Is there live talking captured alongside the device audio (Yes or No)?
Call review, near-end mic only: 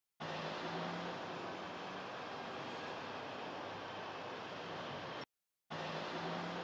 No